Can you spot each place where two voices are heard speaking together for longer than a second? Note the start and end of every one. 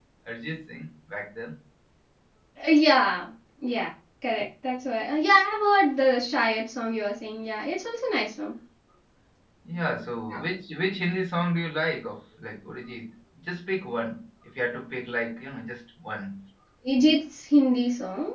none

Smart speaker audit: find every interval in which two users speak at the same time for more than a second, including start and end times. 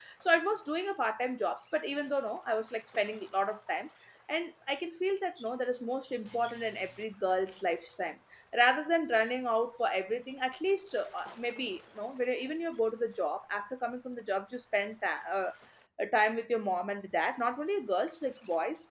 none

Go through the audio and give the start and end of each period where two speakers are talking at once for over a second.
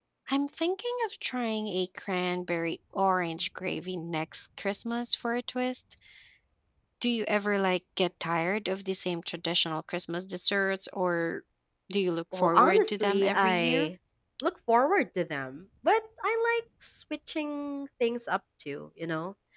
12.3-13.9

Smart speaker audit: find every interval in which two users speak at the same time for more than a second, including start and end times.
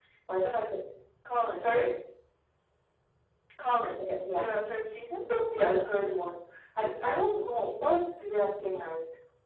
none

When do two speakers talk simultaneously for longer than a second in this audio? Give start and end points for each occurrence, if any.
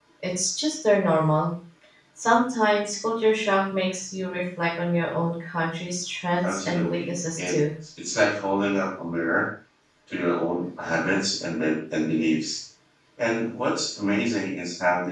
6.4-7.6

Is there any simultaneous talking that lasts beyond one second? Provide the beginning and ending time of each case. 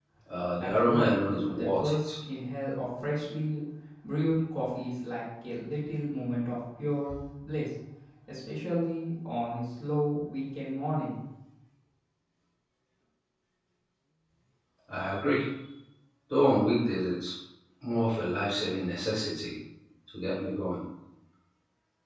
0.6-2.1

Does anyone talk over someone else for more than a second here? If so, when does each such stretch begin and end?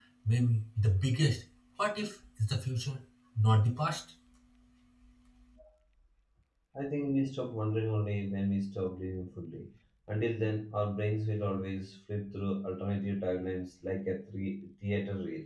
none

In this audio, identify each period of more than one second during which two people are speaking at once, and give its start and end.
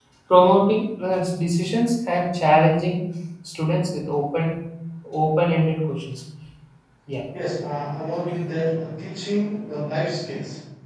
none

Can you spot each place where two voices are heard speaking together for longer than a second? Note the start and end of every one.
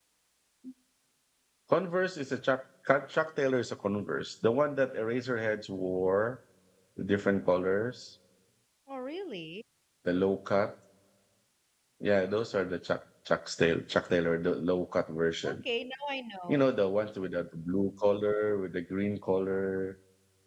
none

